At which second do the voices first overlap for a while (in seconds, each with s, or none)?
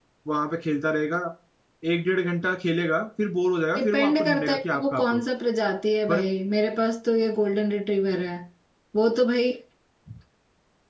3.8 s